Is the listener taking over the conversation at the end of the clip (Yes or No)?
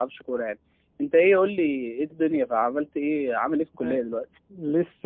Yes